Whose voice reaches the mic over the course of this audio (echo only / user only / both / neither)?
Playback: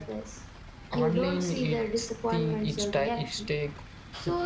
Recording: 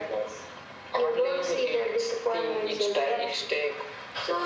echo only